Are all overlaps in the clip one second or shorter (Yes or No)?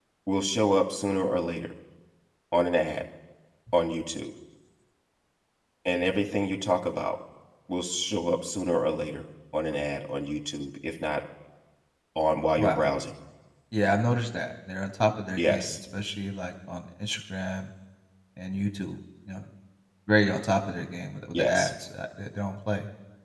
Yes